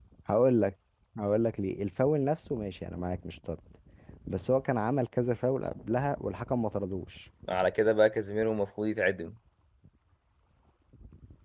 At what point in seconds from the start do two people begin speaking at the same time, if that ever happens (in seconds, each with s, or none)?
none